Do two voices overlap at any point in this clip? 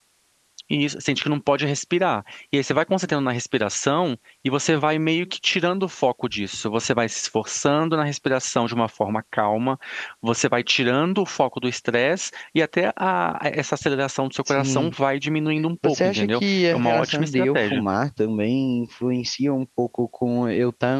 Yes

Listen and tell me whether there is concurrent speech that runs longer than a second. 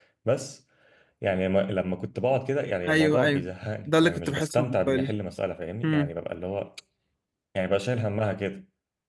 Yes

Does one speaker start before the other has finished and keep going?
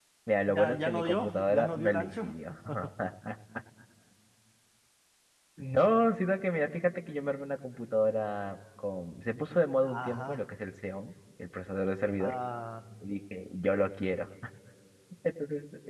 Yes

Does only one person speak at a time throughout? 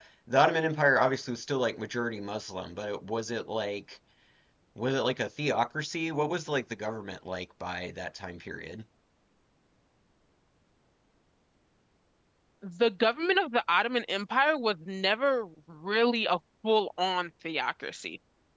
Yes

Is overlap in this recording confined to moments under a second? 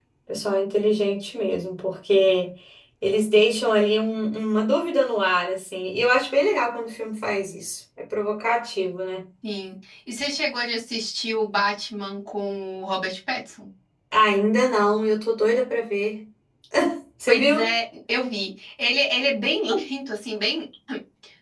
Yes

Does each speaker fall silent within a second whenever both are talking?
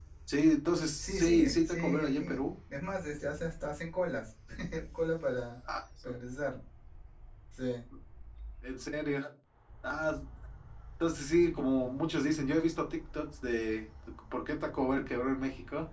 No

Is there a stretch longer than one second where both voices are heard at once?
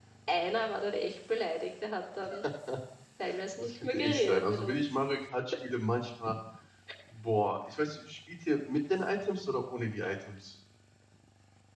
Yes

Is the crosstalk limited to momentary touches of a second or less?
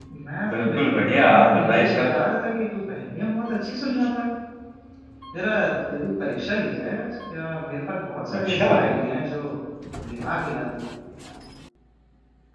No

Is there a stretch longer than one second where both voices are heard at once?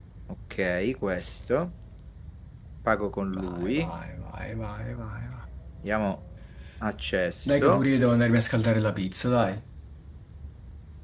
No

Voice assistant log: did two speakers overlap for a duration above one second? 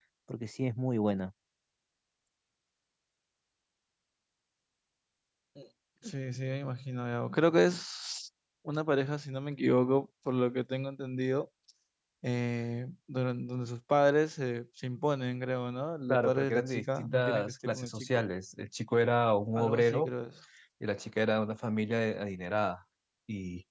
Yes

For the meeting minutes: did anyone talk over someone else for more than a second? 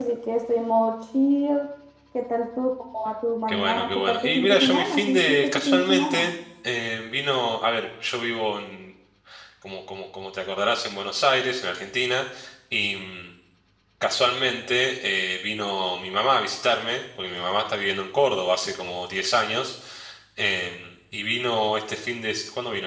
Yes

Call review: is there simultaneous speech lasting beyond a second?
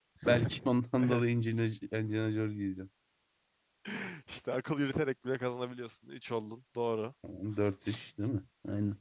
No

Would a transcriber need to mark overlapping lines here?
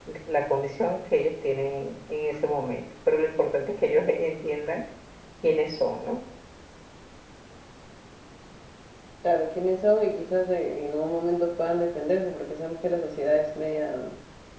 No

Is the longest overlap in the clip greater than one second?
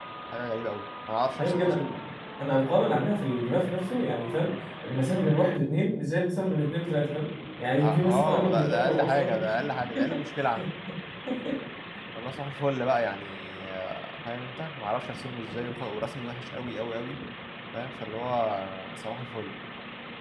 Yes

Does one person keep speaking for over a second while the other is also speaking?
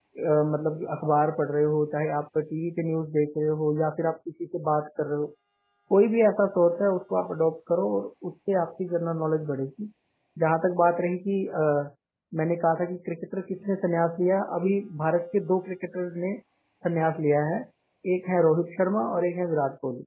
No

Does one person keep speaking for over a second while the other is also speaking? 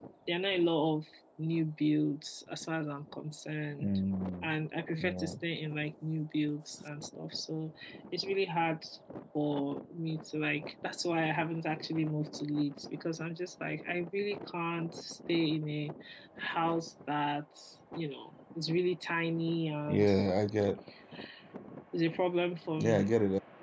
No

